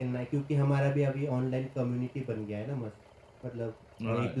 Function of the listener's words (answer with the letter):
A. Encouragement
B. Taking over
A